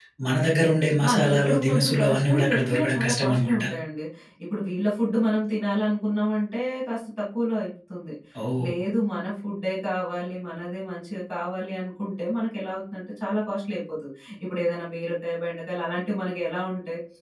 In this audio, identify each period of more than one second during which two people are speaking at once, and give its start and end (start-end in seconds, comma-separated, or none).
1.1-3.7